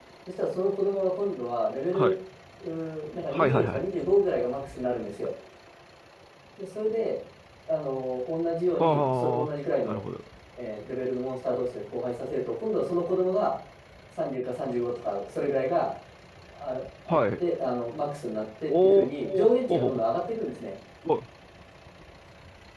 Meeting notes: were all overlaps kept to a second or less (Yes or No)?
No